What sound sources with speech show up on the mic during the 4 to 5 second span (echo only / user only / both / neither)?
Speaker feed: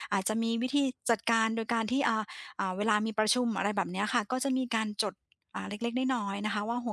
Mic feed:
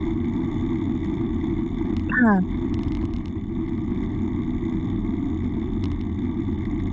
neither